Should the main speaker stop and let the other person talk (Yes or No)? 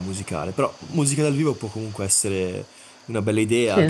Yes